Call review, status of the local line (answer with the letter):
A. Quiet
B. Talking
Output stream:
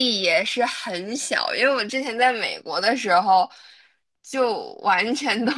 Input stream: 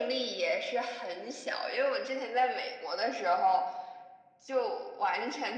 A